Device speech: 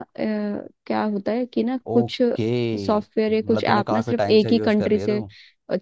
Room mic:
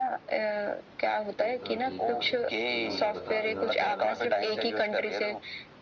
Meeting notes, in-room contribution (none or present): present